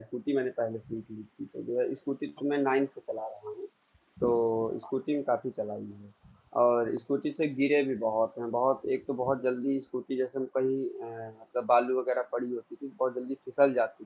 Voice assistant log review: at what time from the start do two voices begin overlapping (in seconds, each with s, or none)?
none